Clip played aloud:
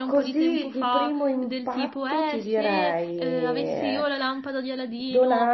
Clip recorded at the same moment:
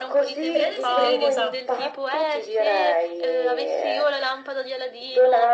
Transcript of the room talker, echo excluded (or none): Tre desideri, esatto.